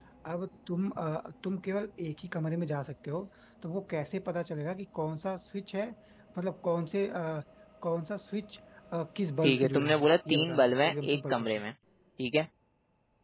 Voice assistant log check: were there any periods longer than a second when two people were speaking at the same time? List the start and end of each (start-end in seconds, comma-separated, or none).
9.4-11.6